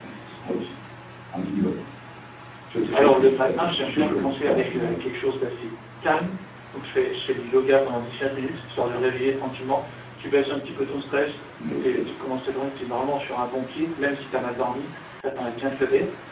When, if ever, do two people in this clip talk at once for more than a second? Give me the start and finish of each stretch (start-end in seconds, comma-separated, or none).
2.9-5.0